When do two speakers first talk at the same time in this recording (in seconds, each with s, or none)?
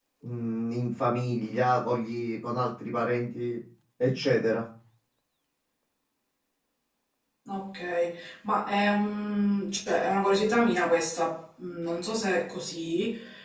none